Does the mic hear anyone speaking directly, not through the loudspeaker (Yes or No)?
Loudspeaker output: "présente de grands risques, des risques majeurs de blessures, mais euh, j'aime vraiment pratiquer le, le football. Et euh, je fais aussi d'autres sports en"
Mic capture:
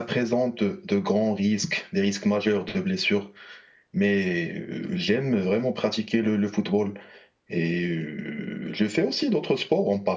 No